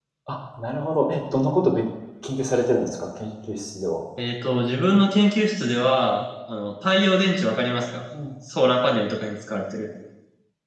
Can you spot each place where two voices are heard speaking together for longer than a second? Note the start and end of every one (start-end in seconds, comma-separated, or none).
none